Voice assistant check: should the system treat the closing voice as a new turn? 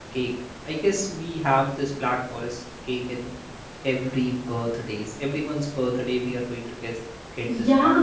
Yes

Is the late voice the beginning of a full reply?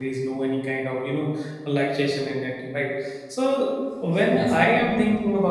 No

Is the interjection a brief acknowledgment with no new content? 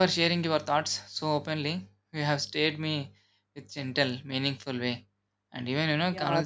No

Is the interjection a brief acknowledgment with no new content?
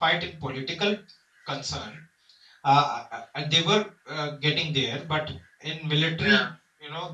Yes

